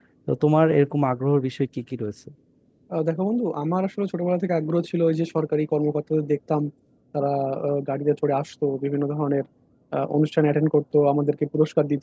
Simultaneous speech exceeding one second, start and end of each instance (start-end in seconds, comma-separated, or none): none